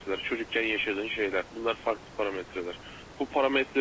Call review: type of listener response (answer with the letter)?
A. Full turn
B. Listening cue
B